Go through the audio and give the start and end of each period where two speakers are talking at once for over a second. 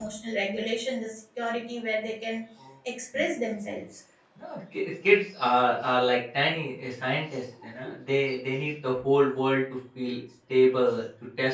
none

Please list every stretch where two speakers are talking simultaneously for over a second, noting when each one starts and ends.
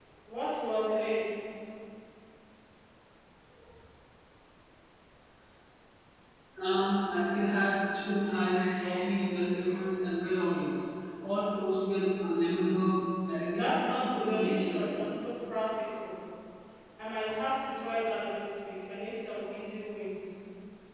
13.5-15.1

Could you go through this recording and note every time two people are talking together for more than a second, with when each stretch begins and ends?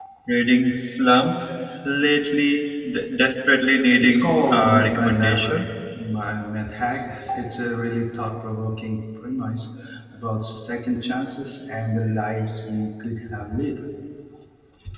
4.0-5.7

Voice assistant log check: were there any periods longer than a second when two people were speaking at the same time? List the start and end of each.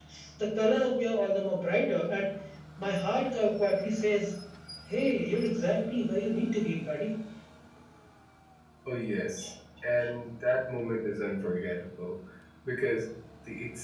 none

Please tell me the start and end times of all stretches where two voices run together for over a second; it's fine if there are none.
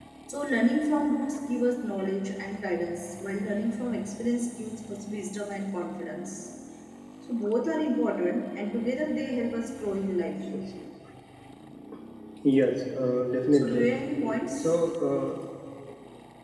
none

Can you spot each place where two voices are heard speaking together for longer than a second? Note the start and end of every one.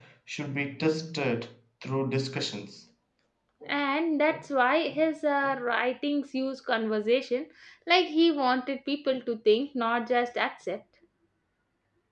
none

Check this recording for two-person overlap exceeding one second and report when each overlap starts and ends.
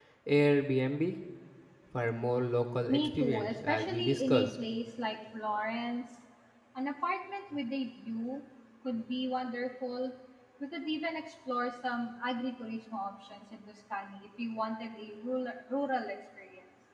2.9-4.5

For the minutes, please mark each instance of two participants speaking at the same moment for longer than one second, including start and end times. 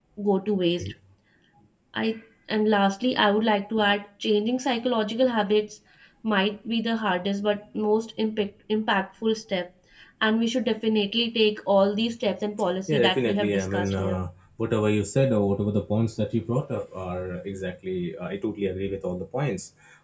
12.9-14.2

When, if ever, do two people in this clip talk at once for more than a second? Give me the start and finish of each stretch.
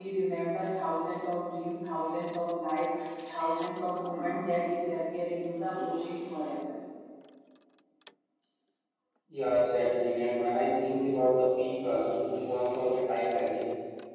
none

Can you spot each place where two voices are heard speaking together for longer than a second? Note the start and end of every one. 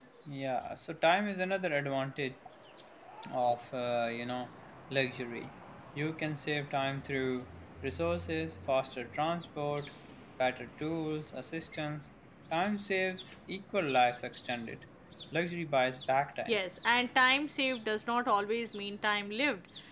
none

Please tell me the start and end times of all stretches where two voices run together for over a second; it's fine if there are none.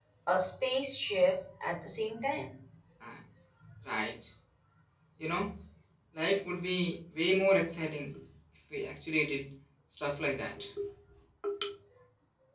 none

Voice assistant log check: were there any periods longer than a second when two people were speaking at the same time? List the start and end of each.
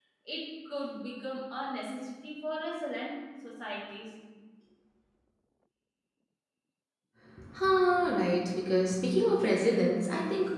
none

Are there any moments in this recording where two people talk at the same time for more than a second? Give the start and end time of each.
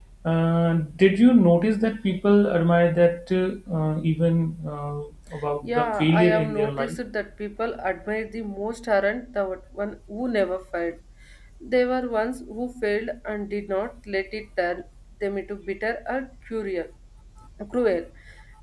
5.6-7.0

